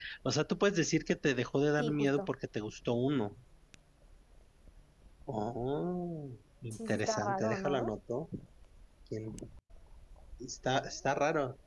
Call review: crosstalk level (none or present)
present